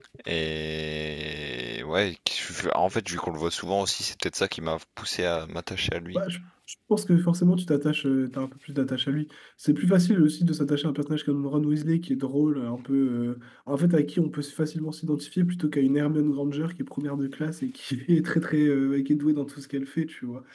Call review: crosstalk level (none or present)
none